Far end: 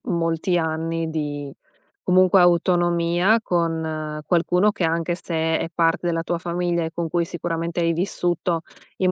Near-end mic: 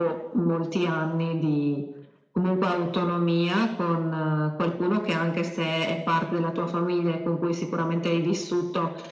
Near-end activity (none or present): none